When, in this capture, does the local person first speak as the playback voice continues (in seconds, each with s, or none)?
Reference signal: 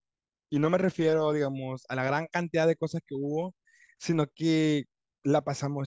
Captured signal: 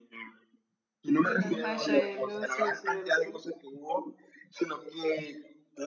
1.2 s